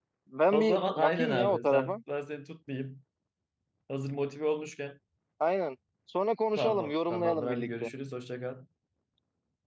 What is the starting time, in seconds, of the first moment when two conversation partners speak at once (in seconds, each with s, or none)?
0.5 s